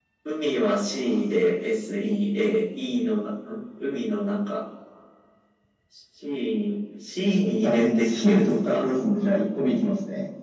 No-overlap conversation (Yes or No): No